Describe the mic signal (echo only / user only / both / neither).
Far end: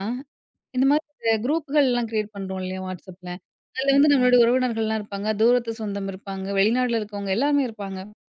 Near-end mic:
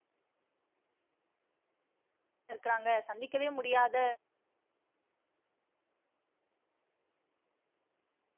user only